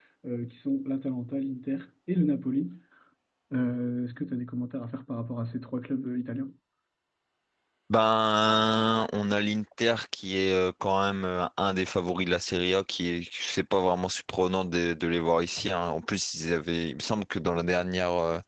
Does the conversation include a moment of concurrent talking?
No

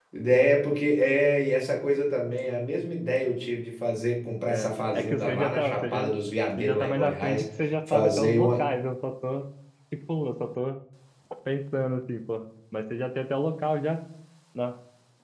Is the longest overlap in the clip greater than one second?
Yes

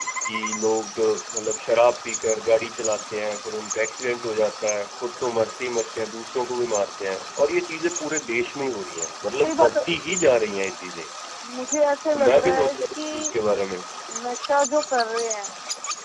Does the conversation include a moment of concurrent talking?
Yes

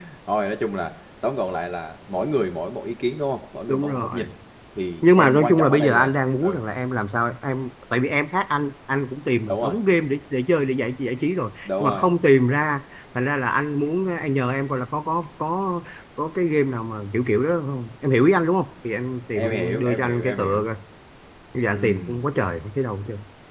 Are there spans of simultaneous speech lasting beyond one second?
Yes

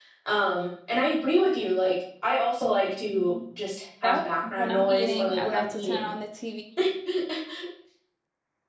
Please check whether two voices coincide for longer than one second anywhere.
Yes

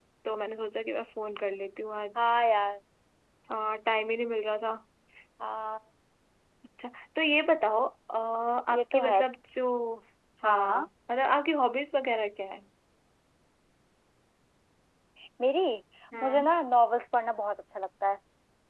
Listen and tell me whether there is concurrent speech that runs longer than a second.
No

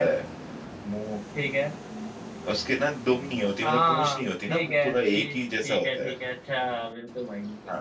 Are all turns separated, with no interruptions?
No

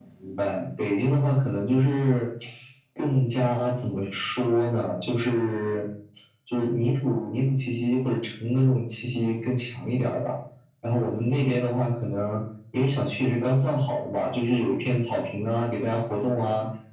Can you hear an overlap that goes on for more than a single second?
No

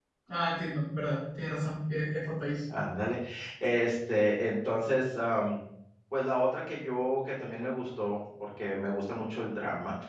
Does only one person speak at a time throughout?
Yes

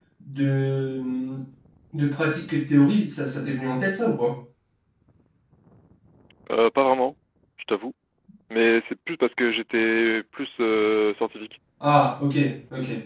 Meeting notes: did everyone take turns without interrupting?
Yes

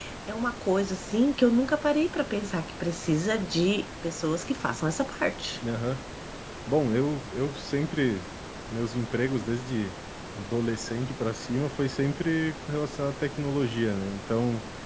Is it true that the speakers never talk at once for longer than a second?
Yes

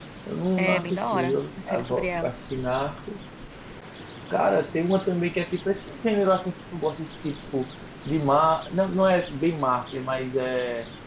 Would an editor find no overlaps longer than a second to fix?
No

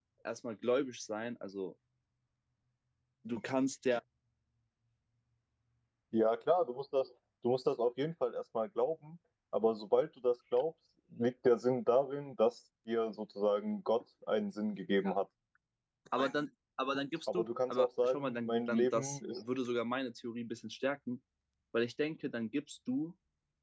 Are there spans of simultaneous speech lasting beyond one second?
Yes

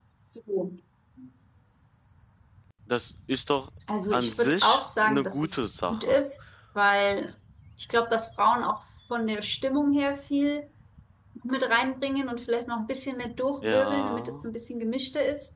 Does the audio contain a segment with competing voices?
Yes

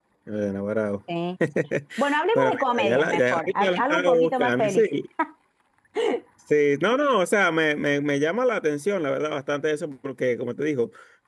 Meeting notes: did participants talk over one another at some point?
Yes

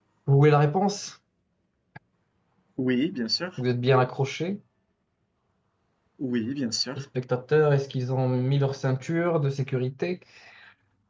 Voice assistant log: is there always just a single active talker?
Yes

